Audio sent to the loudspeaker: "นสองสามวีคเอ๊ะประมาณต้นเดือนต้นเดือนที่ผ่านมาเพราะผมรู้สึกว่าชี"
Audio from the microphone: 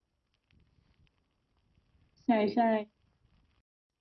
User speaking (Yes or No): Yes